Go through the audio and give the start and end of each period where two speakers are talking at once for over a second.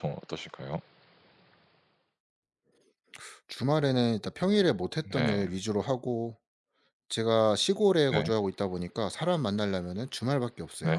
none

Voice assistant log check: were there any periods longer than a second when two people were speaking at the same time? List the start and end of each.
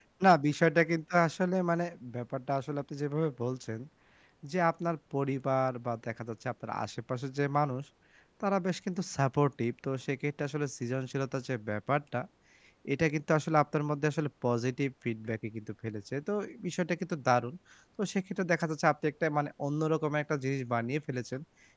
none

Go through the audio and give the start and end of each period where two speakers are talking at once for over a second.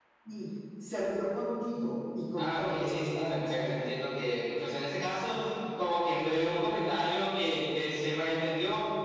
2.4-3.8

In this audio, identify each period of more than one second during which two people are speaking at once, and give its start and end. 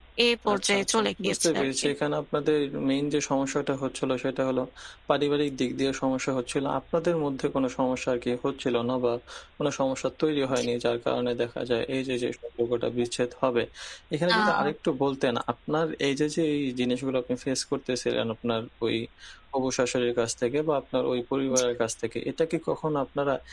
0.5-1.9

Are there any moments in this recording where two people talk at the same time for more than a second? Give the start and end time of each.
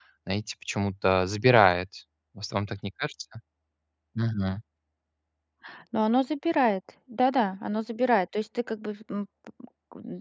none

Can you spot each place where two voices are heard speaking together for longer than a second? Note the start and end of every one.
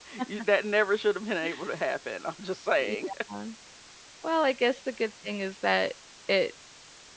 none

